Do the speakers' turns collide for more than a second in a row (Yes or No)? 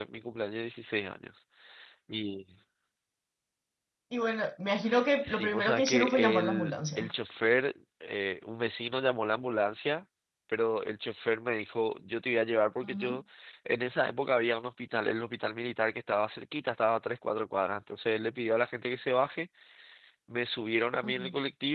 Yes